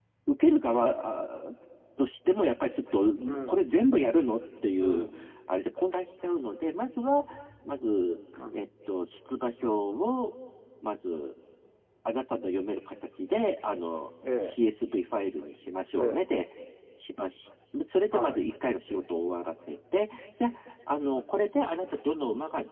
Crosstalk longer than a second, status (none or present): none